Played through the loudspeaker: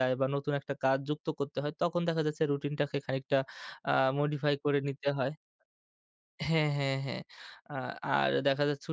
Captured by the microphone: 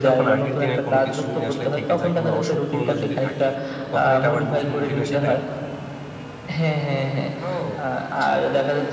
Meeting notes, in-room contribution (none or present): present